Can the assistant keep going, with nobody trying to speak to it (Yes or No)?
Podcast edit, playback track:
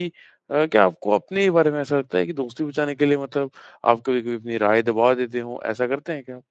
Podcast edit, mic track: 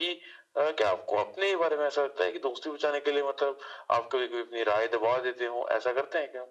Yes